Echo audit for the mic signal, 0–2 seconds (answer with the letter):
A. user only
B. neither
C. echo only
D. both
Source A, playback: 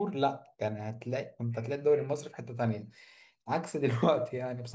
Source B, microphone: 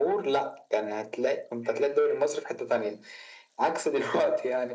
C